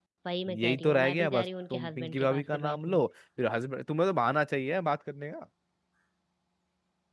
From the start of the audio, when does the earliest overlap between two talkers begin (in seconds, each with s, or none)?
0.6 s